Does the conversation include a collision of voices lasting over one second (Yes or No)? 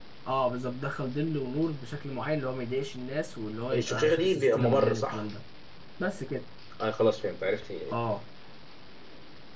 Yes